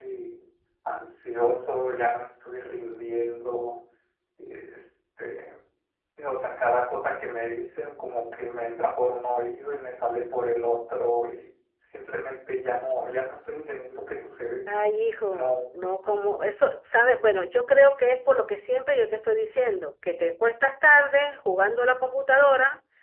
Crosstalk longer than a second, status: none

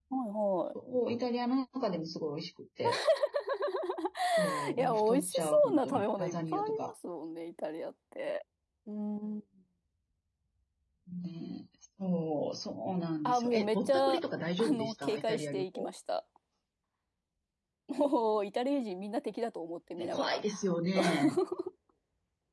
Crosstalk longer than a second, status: present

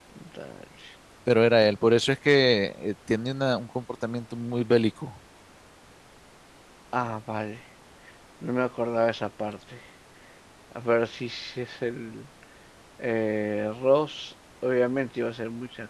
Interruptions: none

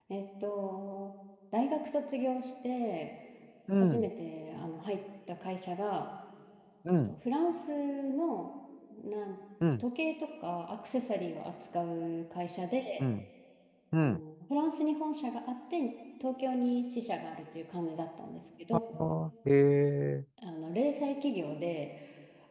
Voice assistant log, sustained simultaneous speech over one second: none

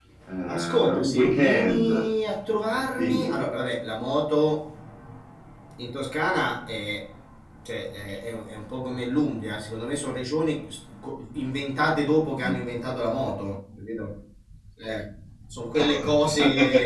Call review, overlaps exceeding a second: present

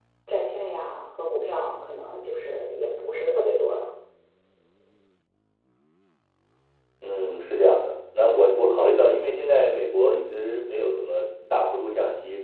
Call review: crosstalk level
none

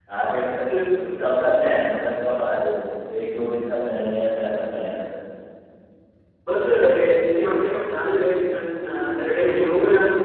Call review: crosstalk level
none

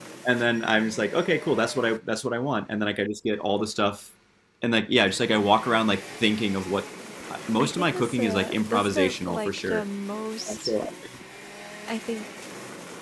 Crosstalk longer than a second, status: present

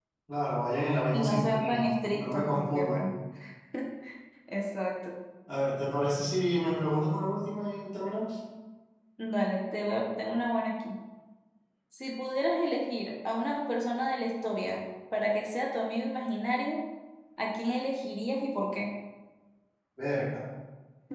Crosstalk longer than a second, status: present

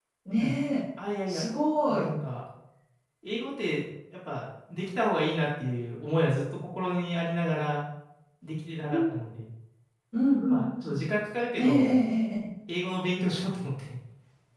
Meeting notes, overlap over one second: none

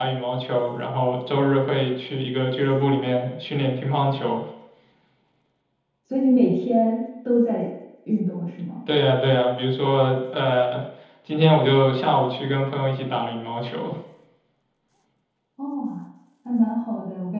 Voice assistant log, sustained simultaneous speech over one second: none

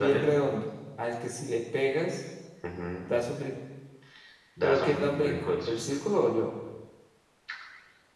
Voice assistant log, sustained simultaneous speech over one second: present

